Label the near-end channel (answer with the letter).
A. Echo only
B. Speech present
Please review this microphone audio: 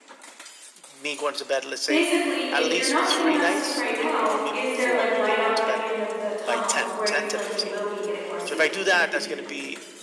B